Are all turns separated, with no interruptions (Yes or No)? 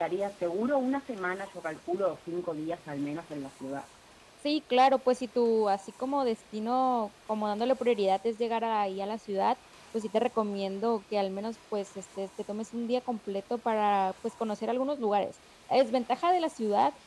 Yes